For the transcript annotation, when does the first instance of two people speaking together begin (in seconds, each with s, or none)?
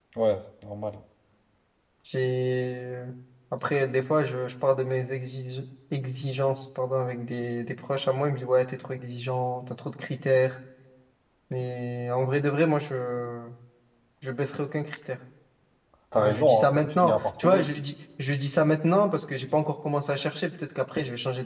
16.2 s